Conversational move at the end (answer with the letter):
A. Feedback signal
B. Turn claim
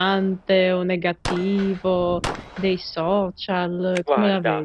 B